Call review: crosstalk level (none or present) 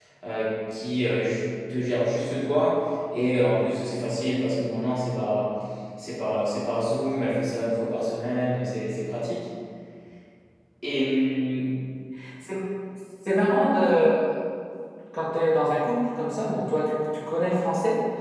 none